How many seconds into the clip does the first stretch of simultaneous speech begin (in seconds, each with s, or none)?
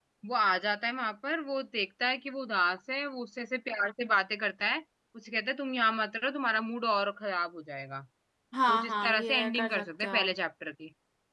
8.7 s